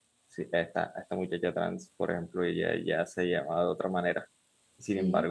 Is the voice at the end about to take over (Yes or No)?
No